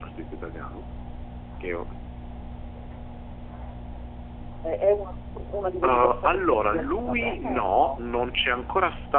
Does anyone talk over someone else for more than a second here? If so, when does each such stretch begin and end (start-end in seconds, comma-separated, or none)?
5.8-8.0